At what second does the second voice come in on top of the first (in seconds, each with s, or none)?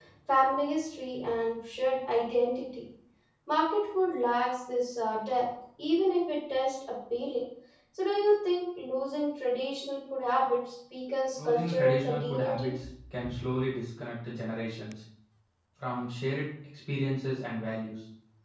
11.4 s